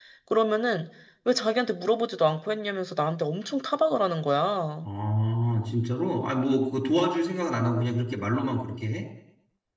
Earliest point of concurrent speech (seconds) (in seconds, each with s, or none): none